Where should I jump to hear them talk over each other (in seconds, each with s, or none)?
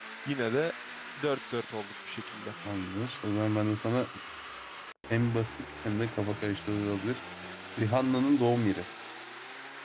none